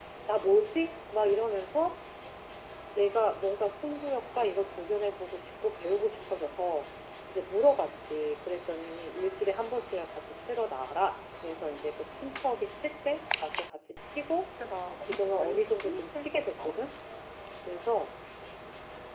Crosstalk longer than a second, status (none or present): present